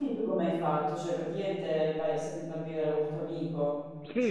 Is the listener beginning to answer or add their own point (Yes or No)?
Yes